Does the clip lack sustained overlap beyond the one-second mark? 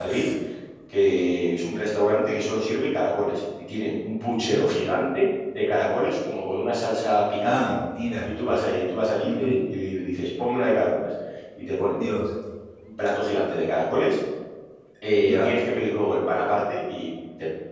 Yes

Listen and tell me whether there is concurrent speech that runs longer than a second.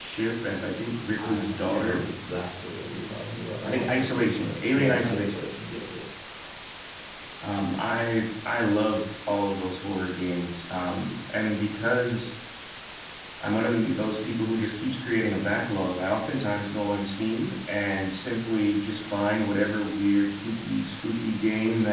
Yes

